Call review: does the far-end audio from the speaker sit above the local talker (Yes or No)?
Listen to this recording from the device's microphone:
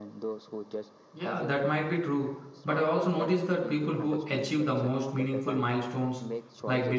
No